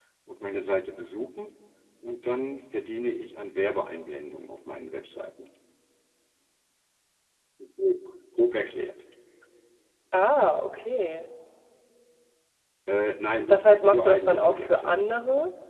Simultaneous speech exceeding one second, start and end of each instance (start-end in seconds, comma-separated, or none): 13.5-14.9